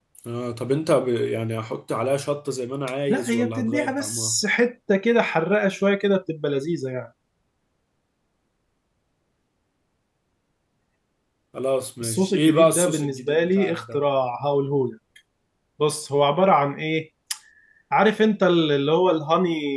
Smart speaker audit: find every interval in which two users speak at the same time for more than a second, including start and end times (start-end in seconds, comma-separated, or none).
3.1-4.4, 12.0-14.0